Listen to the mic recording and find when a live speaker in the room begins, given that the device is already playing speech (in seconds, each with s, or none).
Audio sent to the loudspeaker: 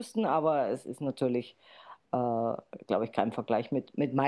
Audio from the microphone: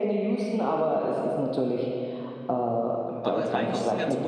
3.2 s